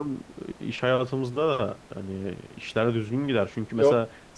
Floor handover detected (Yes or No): No